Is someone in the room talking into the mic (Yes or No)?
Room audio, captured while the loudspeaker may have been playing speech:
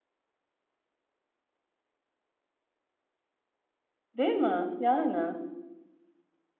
Yes